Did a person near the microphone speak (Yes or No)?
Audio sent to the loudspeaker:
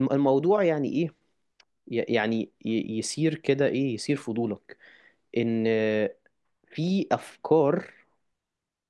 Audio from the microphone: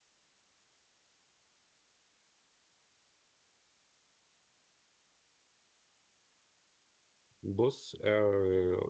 Yes